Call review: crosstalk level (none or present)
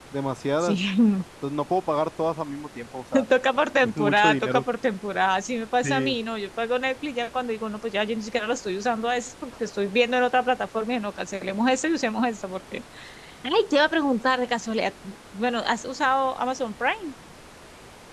present